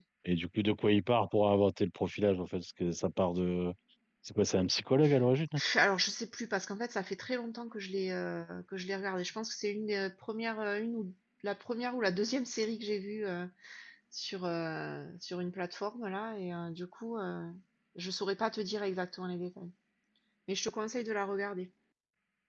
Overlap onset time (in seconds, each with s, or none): none